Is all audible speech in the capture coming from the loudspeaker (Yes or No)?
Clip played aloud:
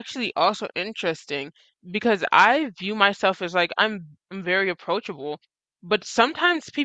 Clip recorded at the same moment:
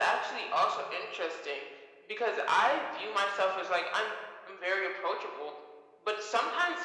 Yes